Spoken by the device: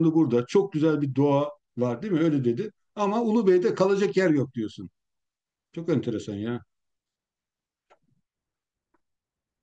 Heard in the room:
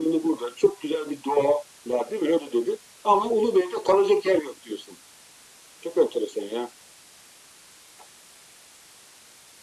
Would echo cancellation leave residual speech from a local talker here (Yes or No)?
No